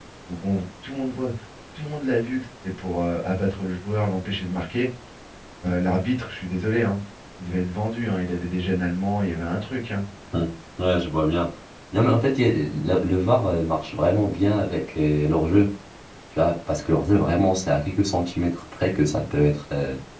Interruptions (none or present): none